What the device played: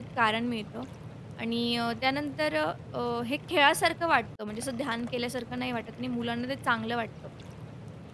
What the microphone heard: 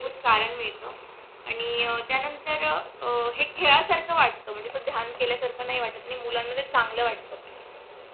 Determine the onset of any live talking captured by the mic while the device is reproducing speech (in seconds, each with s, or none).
none